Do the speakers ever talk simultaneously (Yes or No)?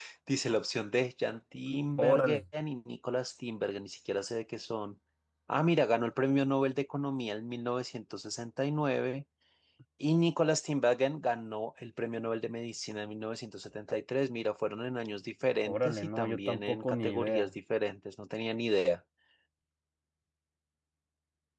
Yes